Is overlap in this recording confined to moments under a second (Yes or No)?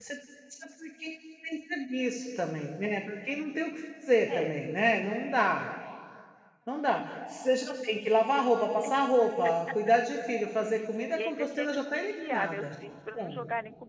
No